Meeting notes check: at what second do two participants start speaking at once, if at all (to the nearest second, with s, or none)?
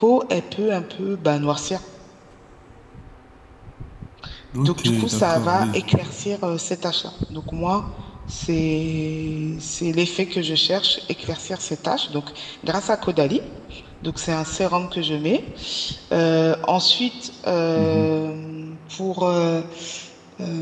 5 s